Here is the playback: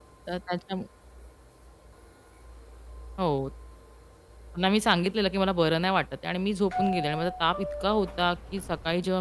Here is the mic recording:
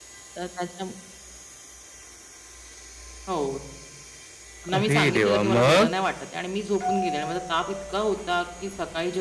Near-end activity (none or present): present